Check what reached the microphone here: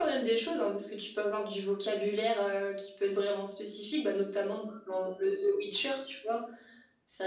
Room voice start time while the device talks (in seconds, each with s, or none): none